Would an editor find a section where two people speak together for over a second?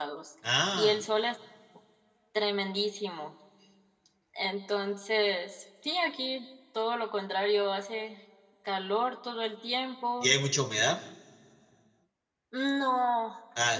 No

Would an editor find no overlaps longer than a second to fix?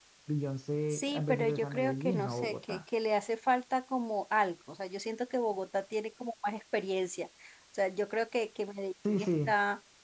No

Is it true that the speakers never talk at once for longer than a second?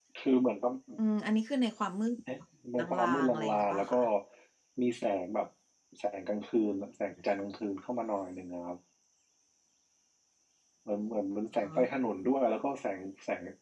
No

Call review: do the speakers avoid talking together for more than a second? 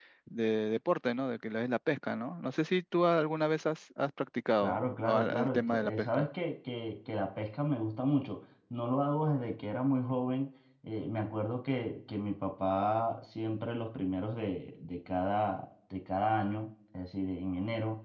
No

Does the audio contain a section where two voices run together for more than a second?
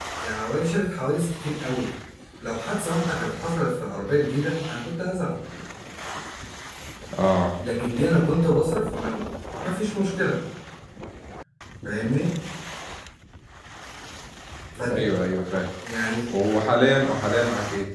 No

